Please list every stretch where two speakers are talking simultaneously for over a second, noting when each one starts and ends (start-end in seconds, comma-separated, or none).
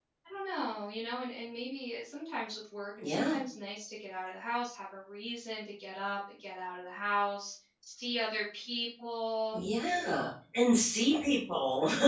none